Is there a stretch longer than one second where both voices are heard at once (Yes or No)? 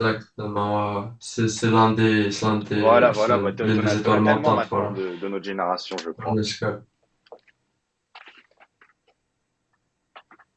Yes